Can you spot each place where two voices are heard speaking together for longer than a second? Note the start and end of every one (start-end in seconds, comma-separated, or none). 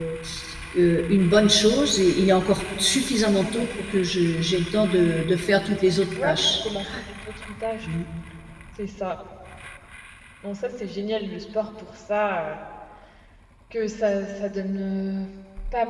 none